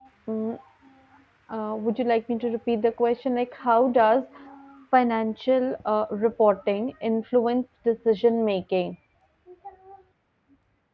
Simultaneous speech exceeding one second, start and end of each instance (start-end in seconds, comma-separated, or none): none